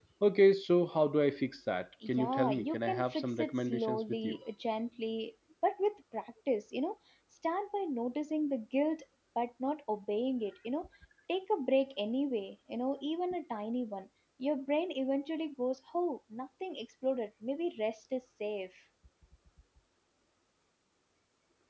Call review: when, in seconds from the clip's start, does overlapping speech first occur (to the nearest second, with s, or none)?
2 s